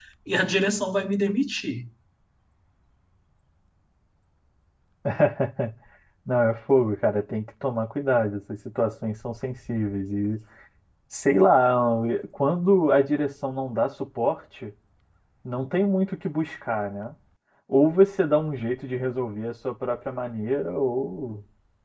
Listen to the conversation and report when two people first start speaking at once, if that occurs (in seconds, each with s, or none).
none